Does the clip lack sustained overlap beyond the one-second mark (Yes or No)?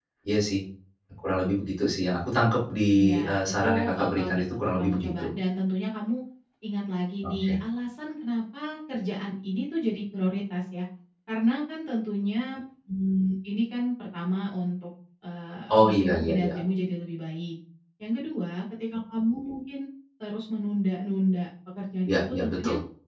No